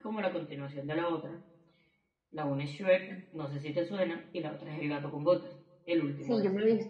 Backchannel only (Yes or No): No